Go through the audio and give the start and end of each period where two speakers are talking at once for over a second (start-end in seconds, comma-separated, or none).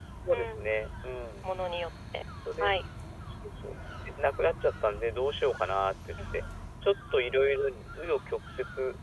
none